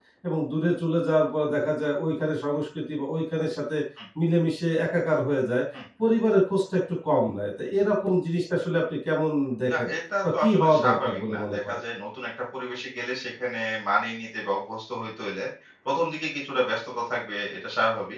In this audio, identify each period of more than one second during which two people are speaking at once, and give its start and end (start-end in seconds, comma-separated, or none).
10.4-11.8